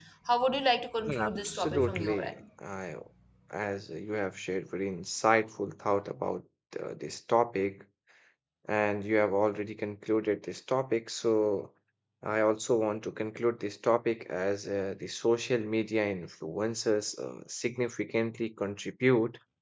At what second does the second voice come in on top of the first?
1.1 s

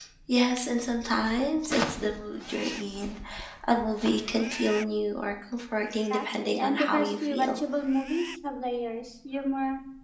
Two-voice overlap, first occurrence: 6.0 s

